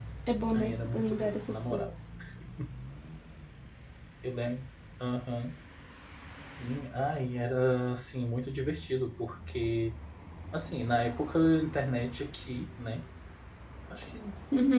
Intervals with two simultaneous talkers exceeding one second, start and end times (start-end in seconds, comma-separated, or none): 0.5-1.9